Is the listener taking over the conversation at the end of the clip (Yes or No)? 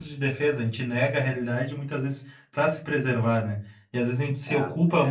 No